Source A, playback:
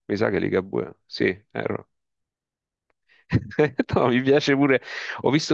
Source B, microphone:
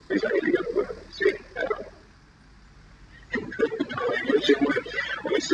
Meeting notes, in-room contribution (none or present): none